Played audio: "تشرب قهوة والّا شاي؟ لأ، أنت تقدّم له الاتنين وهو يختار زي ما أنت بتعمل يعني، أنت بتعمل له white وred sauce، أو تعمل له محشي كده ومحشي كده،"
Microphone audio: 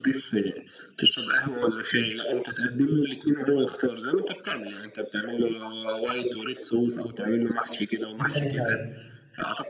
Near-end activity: present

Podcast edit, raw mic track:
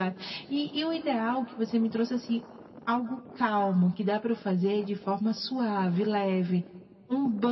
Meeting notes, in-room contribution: none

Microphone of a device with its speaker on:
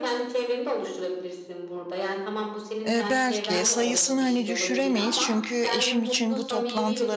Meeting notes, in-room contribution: present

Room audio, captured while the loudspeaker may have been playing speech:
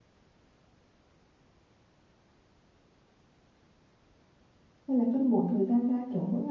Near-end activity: present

